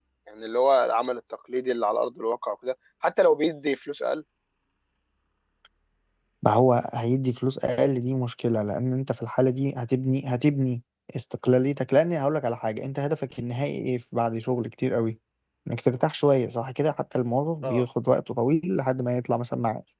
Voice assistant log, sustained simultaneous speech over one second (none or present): none